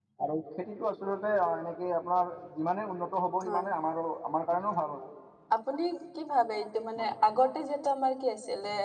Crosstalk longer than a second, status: none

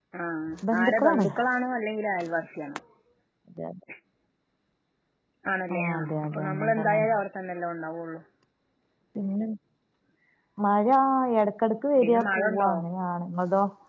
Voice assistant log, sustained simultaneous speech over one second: present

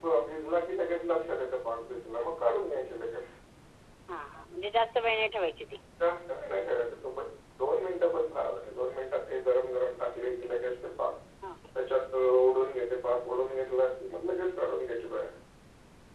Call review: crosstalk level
none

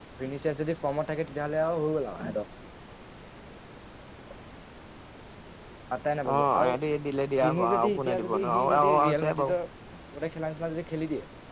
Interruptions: present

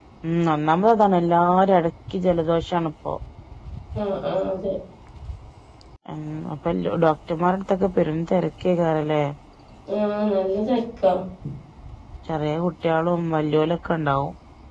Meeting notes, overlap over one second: none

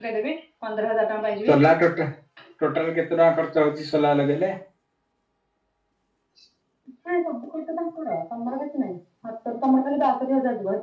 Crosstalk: none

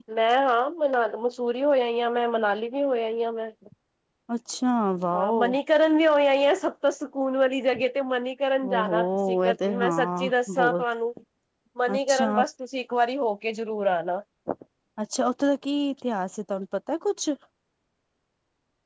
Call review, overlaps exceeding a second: present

